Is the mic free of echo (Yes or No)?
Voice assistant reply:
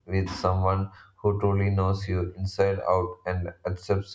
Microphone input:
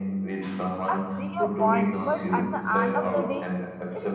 No